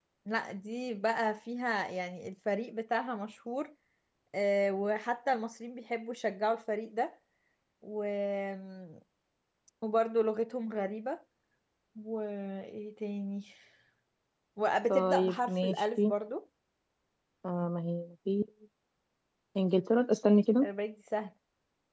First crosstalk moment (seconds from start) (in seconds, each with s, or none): 14.9 s